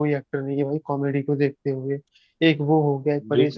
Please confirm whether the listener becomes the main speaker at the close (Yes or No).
No